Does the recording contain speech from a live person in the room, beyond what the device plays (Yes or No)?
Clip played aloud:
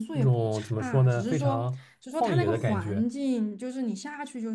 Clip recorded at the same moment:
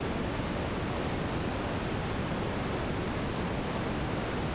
No